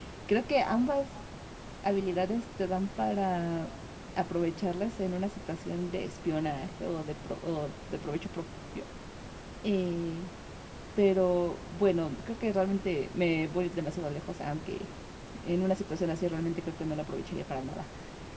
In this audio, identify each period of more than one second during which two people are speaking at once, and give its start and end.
none

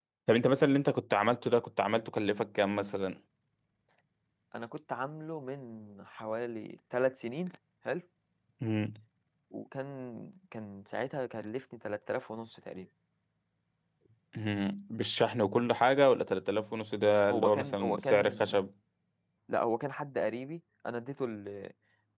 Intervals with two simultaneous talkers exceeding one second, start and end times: 17.3-18.5

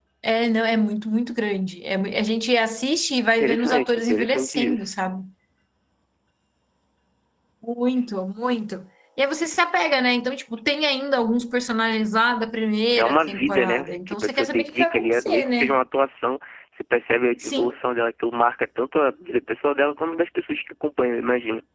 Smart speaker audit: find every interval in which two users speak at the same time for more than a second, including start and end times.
3.4-4.9, 13.0-15.8

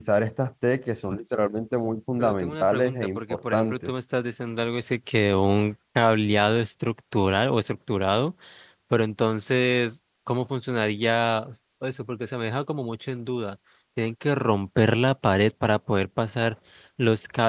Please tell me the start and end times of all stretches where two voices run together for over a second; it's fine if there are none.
2.2-3.9

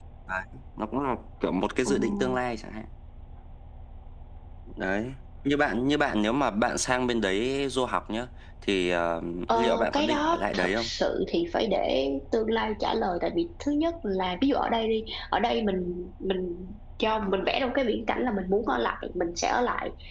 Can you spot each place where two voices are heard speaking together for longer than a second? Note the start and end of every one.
9.5-10.9

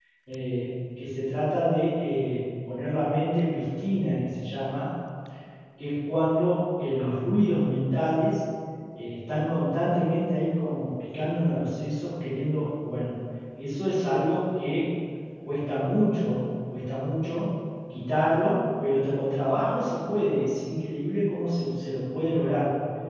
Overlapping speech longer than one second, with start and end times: none

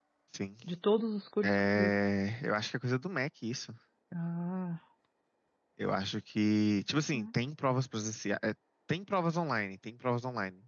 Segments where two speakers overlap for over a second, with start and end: none

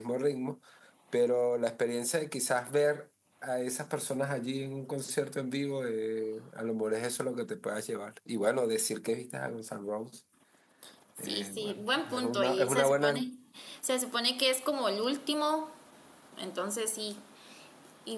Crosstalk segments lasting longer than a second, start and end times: 11.2-13.3

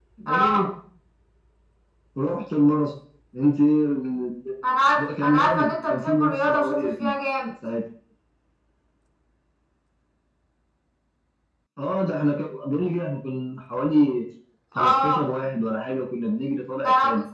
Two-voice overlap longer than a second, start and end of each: 5.2-7.1

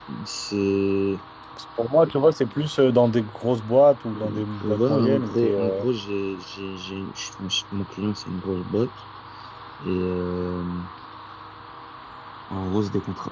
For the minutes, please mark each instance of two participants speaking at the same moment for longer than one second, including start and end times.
4.2-5.8

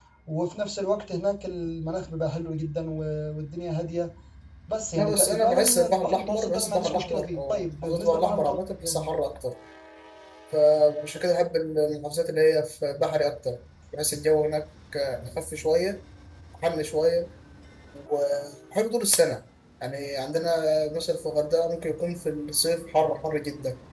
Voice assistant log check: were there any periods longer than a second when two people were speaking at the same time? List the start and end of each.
5.0-9.1

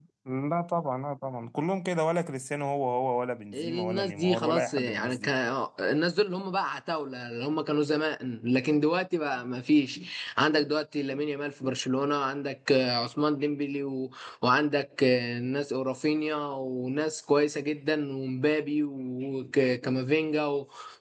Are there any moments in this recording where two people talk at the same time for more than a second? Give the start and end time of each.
3.5-5.3

